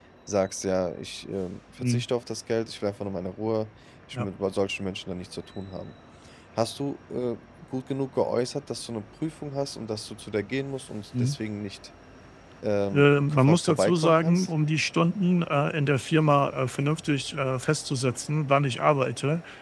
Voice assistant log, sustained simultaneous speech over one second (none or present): present